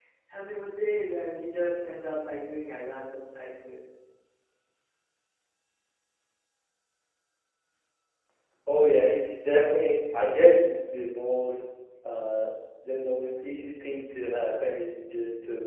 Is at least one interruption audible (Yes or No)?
No